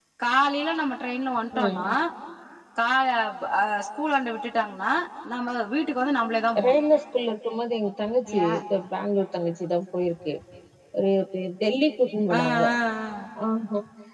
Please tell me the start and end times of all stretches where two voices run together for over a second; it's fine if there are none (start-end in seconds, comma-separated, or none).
none